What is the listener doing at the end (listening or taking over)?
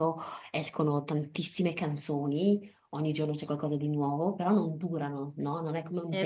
listening